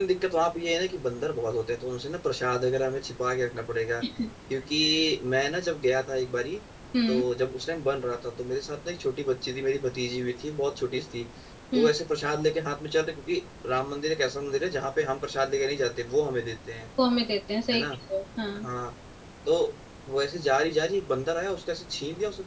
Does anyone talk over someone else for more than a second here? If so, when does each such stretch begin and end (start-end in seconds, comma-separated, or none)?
none